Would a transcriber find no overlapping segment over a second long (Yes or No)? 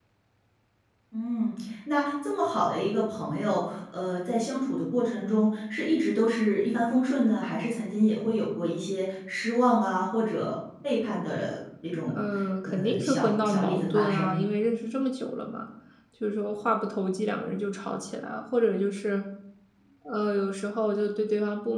No